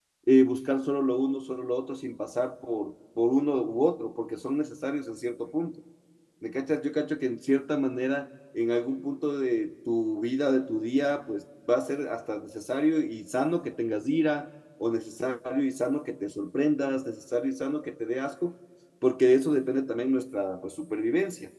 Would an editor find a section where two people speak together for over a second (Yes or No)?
No